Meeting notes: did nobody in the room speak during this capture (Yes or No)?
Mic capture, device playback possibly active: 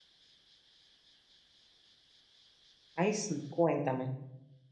No